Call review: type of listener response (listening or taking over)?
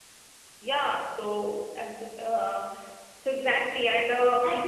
listening